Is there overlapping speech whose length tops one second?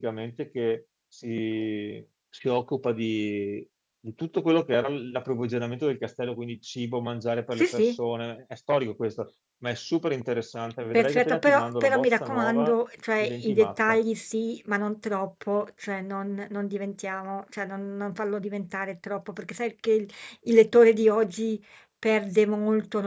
Yes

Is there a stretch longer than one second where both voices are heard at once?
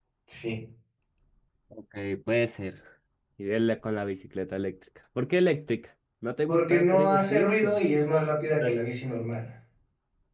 Yes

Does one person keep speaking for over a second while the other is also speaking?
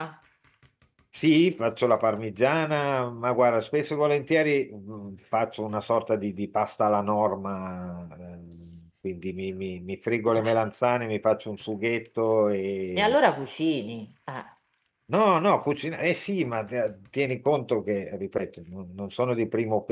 No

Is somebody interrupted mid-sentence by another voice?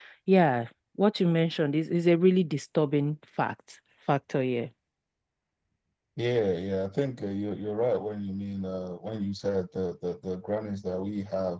No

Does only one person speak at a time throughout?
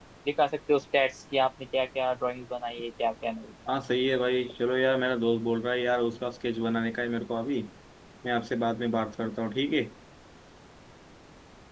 Yes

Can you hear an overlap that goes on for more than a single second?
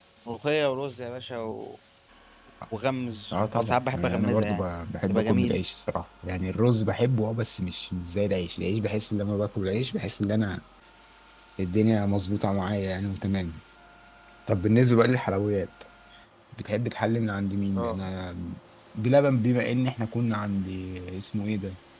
Yes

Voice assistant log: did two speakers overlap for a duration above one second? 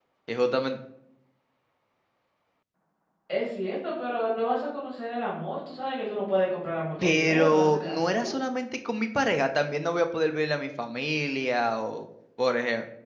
Yes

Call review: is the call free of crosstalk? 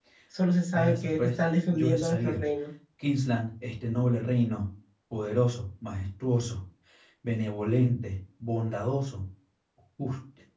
No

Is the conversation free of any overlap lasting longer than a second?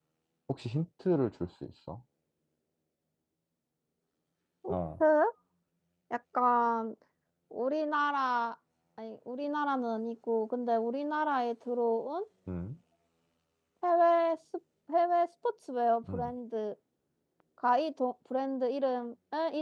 Yes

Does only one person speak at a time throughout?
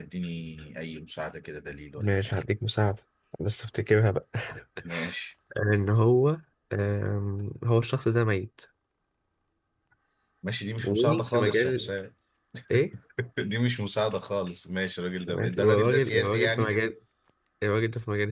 No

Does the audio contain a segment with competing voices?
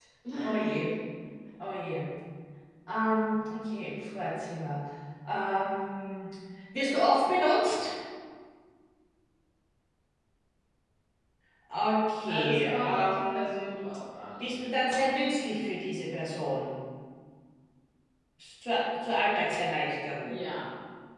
Yes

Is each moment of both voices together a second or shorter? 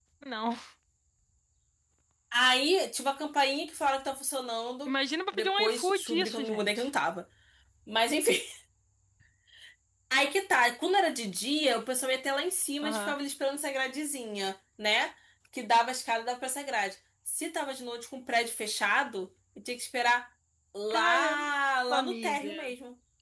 No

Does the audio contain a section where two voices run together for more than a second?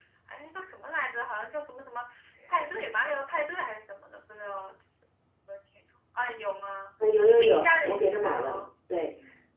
Yes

